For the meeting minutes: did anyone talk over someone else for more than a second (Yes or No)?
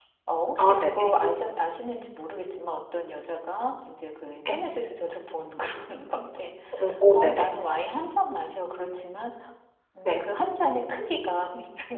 No